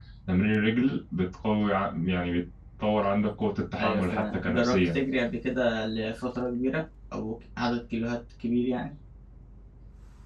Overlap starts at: 4 s

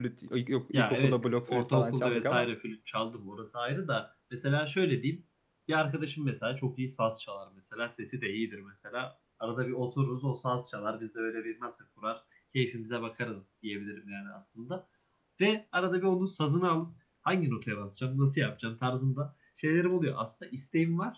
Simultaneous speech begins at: 1 s

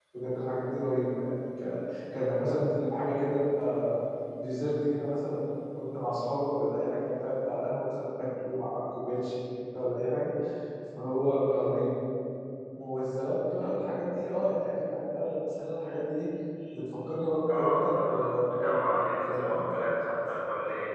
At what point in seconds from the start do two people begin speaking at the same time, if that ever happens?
17 s

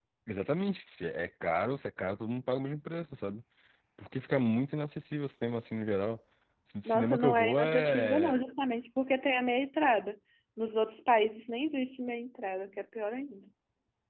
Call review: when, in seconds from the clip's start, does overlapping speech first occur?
7 s

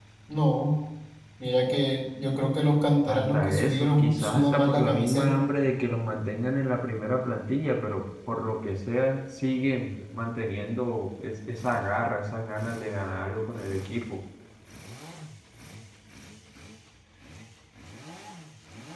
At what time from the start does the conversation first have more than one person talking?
3 s

